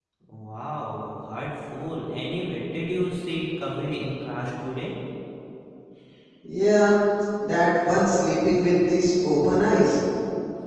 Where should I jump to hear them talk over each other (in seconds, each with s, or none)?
none